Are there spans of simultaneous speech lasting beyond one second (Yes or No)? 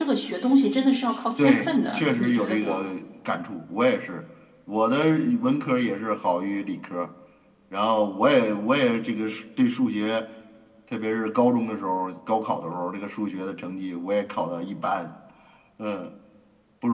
Yes